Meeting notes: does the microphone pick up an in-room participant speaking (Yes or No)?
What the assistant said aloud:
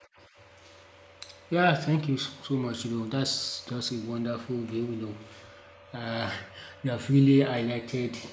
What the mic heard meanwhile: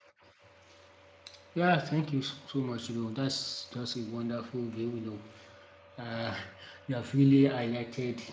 No